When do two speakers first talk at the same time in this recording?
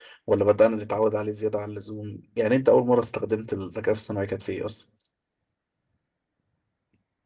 none

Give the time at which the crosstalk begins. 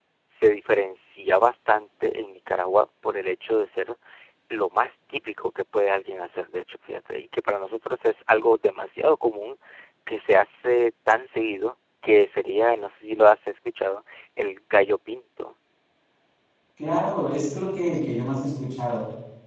none

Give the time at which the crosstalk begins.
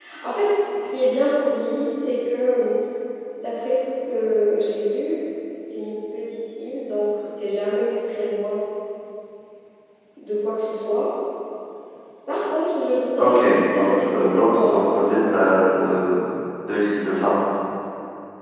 13.2 s

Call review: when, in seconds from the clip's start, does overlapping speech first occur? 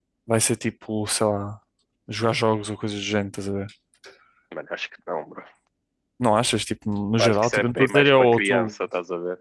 7.2 s

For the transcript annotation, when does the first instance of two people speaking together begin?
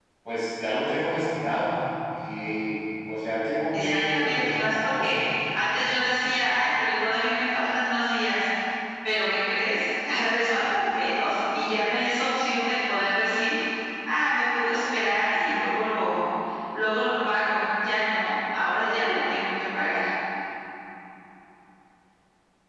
3.7 s

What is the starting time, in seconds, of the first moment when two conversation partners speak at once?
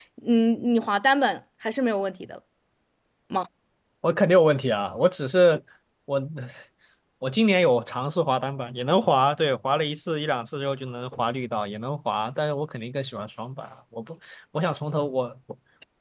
none

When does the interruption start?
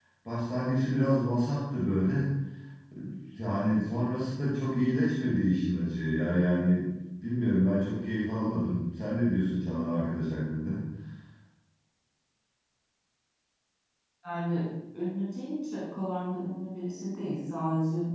none

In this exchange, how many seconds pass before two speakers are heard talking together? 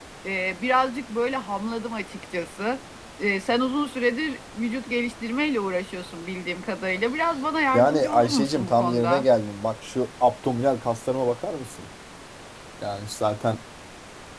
7.7 s

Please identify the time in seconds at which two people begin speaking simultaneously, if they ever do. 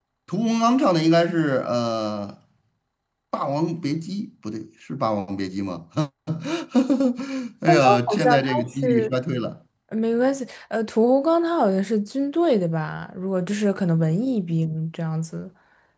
7.7 s

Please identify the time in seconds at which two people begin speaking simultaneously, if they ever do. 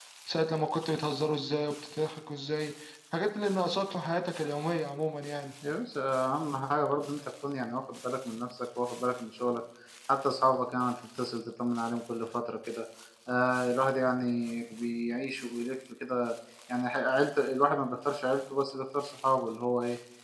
none

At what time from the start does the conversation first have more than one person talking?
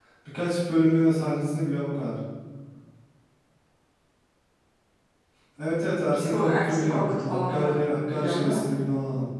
6.2 s

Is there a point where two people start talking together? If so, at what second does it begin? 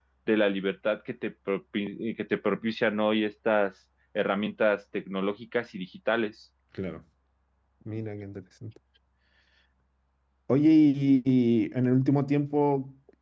none

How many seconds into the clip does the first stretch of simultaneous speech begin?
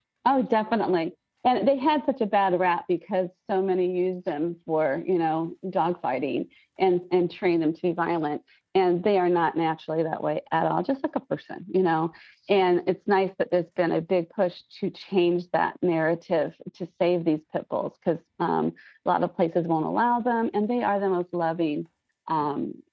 none

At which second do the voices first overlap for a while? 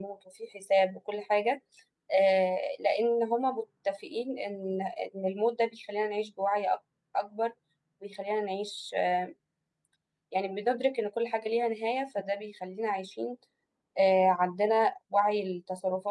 none

